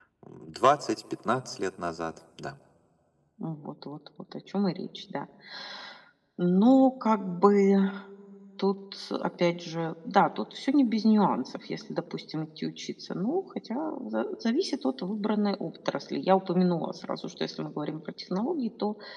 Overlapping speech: No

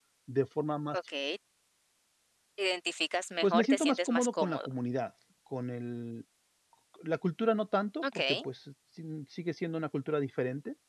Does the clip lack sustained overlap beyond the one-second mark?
No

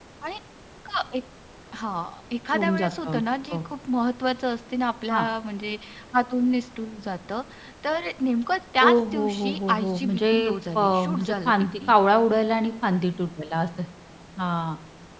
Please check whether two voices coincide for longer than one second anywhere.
Yes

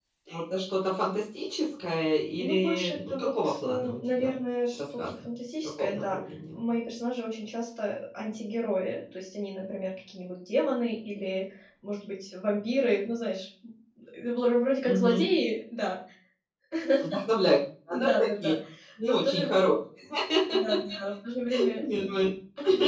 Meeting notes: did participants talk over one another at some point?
Yes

